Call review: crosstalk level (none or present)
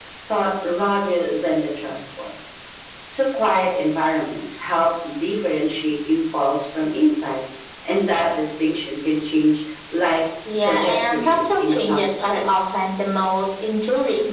present